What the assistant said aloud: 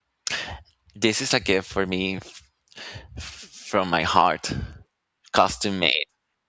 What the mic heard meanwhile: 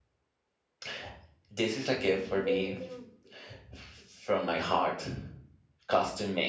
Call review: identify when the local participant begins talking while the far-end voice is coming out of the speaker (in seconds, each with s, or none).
2.1 s